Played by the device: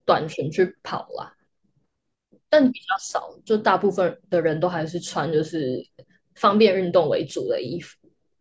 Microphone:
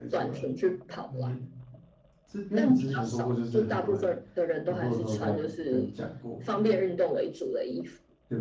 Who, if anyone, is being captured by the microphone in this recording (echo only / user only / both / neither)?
both